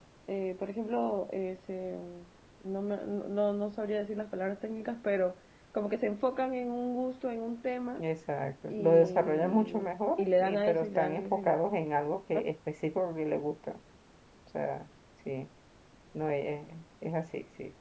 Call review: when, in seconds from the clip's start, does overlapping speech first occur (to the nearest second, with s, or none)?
9 s